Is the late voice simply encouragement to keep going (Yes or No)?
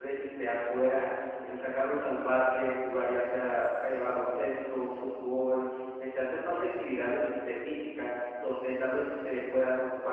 Yes